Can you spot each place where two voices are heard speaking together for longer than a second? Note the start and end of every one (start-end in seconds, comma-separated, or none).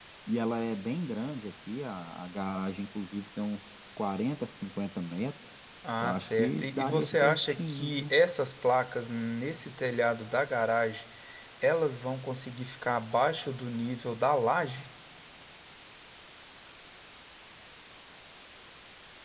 6.0-8.1